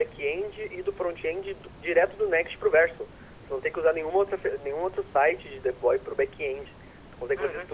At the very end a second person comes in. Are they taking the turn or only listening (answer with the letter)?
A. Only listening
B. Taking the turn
B